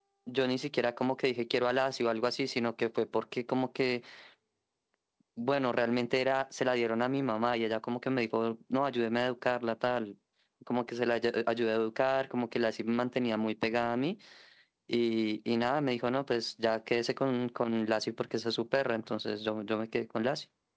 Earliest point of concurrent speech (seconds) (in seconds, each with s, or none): none